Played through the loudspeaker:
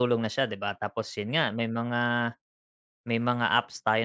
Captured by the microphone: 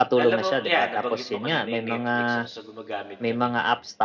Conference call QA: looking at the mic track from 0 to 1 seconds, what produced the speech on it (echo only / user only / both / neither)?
both